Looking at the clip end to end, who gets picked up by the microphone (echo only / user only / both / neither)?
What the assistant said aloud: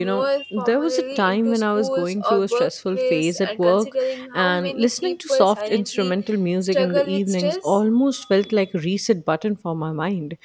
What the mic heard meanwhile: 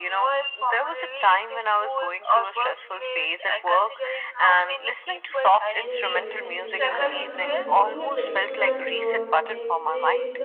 both